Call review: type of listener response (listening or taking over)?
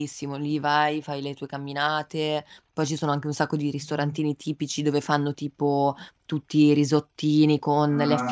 listening